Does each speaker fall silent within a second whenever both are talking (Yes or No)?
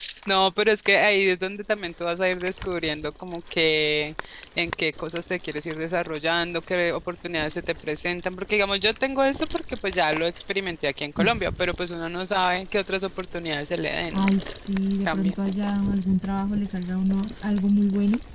Yes